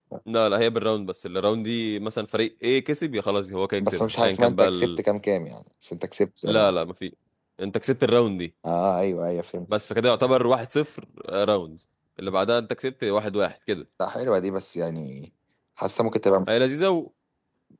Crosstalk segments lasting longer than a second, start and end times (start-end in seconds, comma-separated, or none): 3.8-5.0